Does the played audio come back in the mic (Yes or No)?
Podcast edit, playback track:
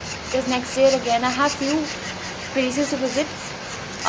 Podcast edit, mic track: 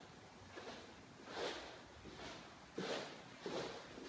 No